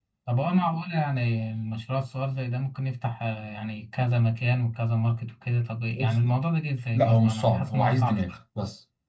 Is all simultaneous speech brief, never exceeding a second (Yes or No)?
No